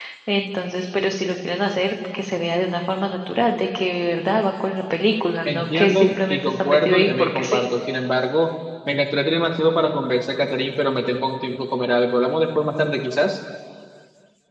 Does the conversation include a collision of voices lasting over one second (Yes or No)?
Yes